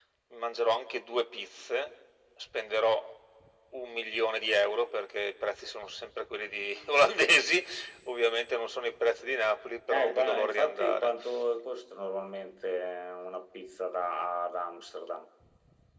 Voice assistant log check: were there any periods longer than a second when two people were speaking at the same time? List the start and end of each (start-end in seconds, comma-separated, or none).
9.9-11.1